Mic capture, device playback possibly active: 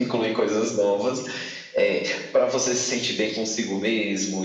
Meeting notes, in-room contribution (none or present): none